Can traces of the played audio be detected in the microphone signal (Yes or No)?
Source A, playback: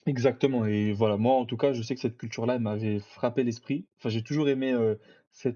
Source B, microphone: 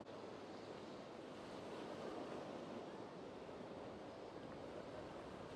No